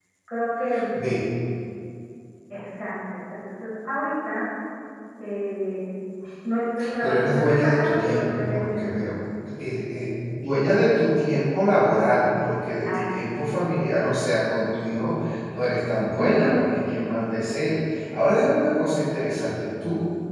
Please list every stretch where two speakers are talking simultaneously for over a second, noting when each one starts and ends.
7.0-9.2

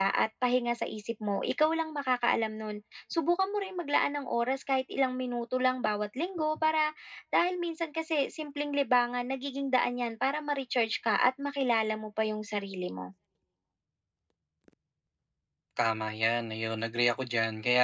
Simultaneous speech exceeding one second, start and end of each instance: none

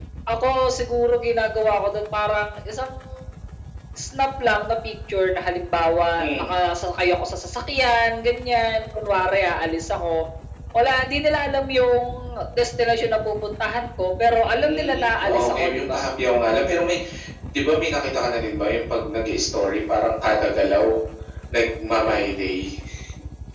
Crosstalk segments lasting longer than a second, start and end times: 14.4-16.0

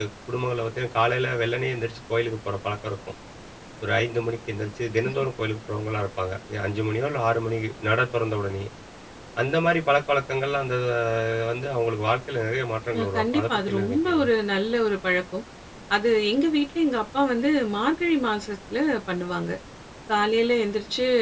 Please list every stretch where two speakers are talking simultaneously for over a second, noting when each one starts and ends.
13.0-14.2

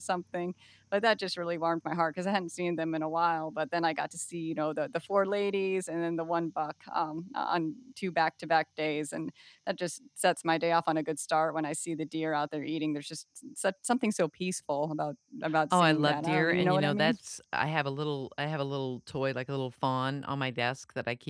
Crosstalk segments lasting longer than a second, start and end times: 15.7-17.1

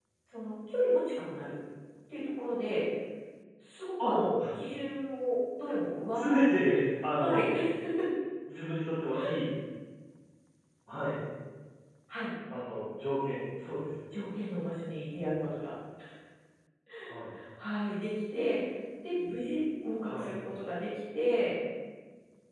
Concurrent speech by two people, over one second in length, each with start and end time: none

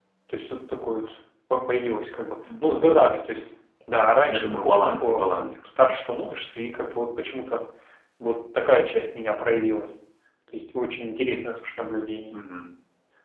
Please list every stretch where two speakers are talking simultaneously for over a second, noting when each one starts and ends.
4.3-5.5

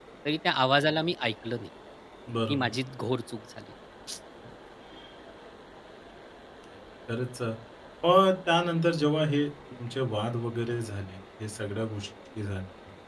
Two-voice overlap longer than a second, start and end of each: none

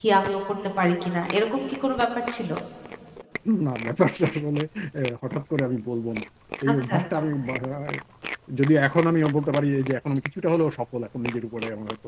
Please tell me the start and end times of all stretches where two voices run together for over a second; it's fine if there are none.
none

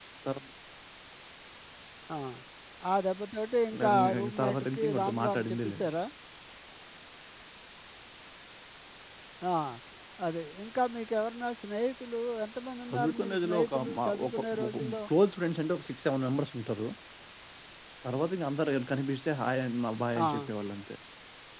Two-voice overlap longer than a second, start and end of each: 3.8-5.9, 12.8-15.0

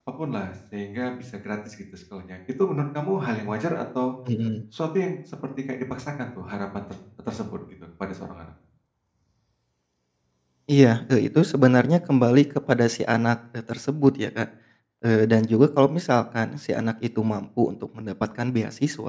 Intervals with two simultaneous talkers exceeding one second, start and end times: none

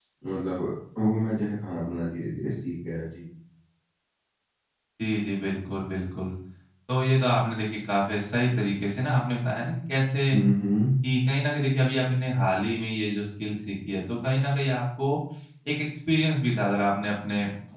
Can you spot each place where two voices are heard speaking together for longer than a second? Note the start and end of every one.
none

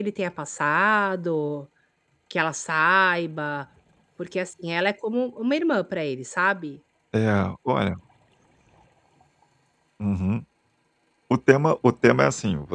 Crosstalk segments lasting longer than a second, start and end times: none

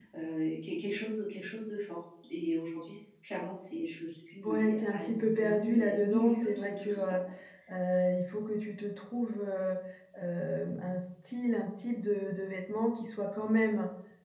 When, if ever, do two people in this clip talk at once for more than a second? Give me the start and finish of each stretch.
4.4-7.2

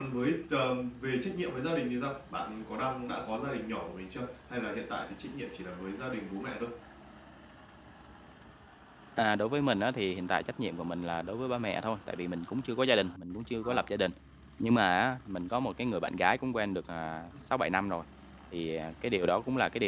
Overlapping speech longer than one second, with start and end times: none

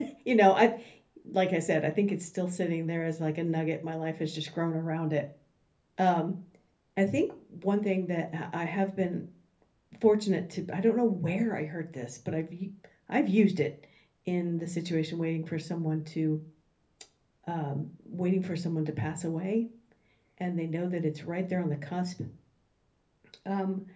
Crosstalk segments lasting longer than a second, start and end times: none

